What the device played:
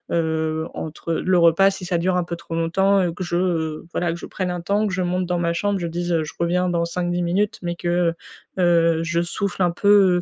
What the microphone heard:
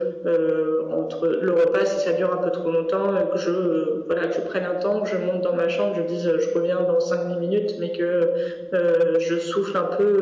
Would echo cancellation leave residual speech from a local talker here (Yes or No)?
No